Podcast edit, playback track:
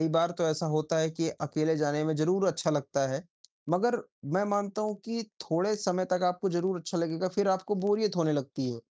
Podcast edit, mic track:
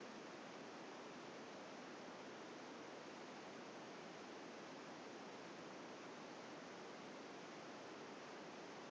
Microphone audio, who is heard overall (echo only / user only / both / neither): neither